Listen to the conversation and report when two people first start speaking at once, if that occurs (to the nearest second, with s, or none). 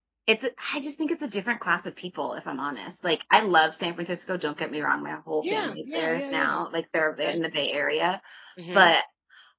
5 s